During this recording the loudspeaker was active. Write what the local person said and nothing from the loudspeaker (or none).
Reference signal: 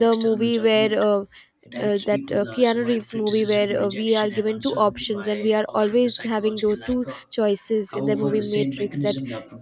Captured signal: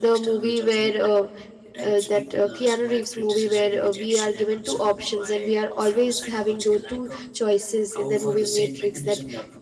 none